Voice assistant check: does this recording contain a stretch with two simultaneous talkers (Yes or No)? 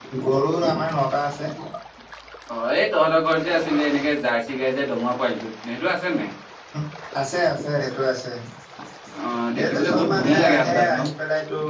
Yes